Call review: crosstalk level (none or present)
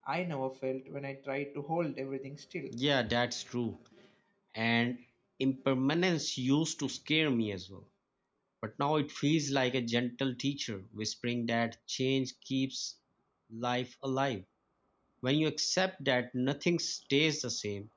none